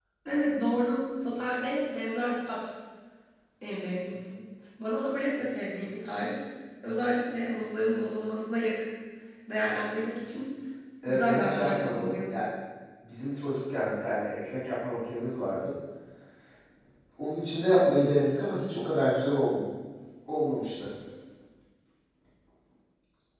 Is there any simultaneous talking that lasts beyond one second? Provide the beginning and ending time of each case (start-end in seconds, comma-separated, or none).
11.1-12.3